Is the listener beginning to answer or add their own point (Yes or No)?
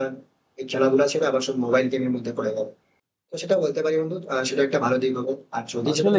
Yes